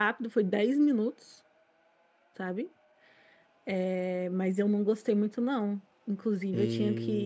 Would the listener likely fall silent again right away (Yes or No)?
Yes